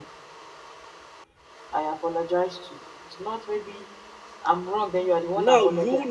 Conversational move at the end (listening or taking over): taking over